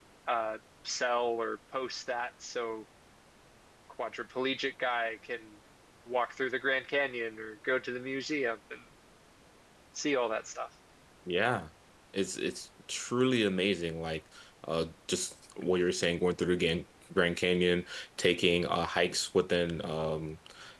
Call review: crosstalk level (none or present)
none